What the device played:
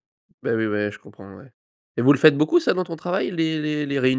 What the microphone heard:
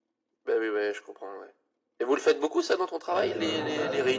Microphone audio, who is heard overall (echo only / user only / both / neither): both